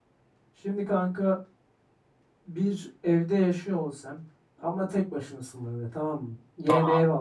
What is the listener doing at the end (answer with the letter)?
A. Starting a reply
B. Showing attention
B